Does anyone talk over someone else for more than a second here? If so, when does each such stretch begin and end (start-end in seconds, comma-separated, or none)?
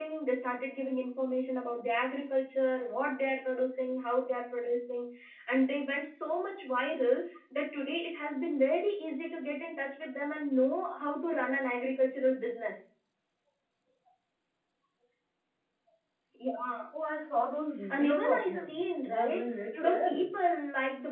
17.9-20.3